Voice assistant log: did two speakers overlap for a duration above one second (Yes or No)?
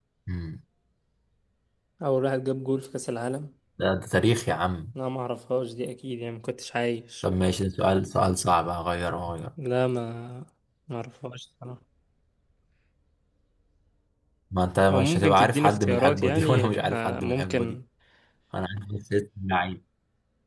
Yes